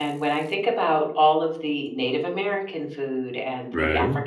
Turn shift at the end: No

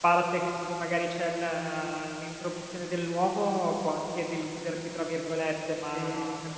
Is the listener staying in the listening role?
Yes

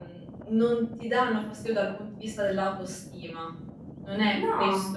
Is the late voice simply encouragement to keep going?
Yes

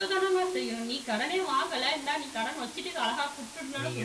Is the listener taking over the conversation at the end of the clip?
Yes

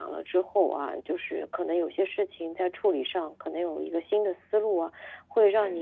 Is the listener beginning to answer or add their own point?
No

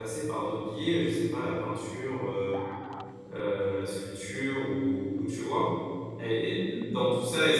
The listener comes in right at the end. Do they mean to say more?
No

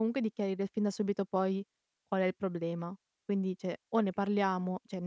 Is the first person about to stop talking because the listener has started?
No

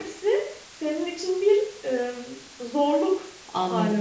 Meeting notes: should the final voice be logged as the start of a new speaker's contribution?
Yes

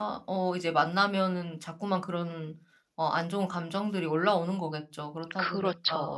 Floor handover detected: Yes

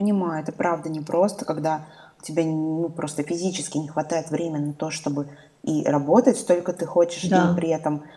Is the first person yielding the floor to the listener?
No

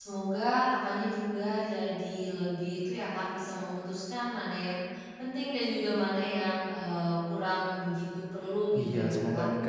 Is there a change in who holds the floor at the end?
Yes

